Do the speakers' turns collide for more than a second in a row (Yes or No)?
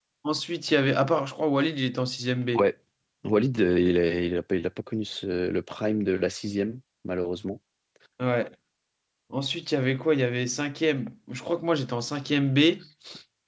No